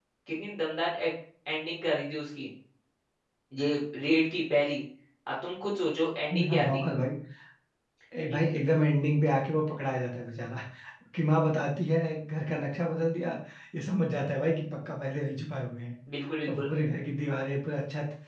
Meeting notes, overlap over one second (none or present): none